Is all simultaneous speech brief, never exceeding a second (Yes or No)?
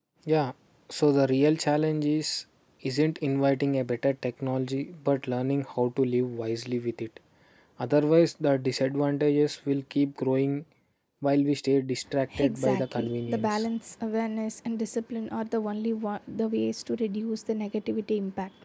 No